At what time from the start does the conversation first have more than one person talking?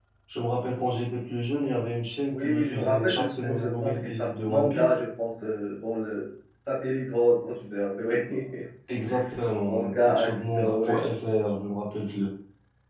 2 s

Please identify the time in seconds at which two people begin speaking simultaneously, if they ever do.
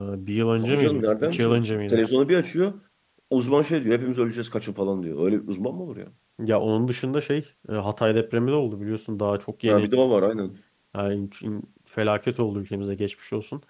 1 s

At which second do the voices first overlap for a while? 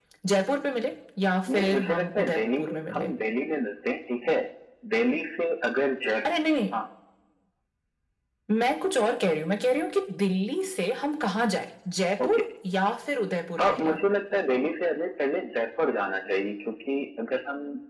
1 s

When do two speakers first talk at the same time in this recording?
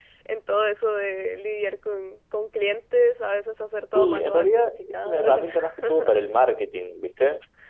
4 s

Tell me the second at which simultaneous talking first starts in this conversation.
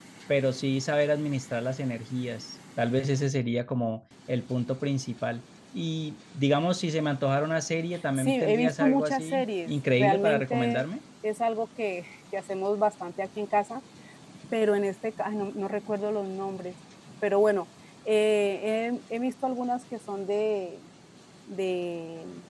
8 s

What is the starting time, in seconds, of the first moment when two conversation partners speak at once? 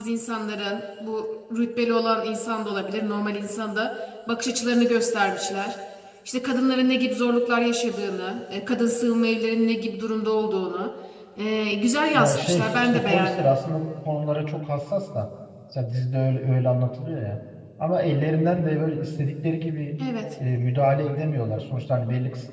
12 s

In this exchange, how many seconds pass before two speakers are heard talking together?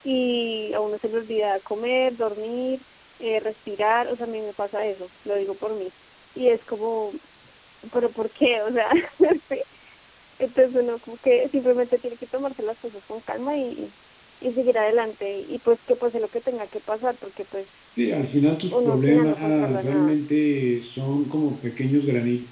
19 s

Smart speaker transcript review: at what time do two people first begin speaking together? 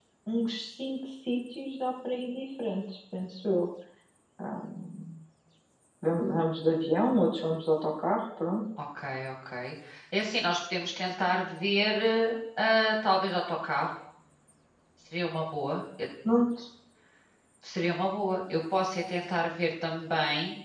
none

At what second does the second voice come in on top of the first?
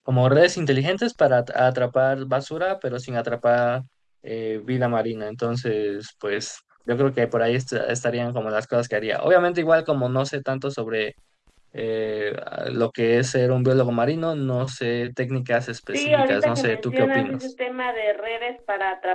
16 s

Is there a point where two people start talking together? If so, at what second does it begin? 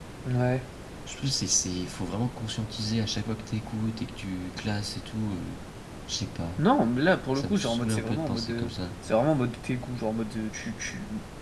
7 s

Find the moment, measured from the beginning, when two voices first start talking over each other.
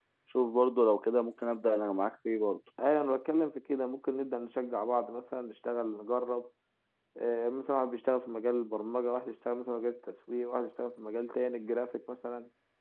none

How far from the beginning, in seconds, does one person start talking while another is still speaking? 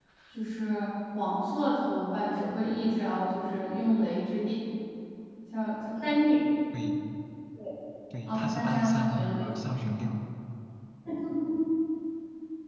8 s

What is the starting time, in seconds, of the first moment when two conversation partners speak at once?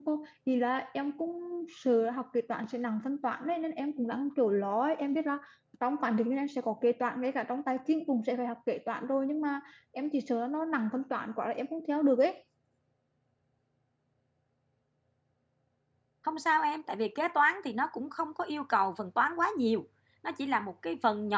none

